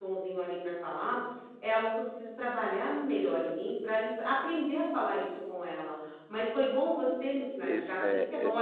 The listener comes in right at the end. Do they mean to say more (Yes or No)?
No